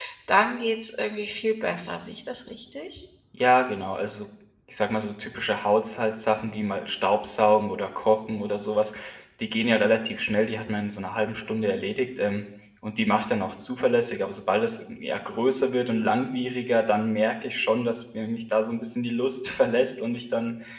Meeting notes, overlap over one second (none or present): none